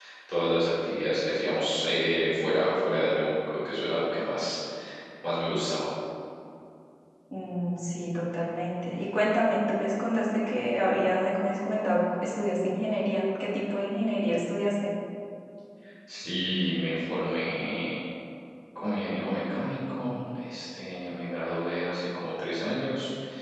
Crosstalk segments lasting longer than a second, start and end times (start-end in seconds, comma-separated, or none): none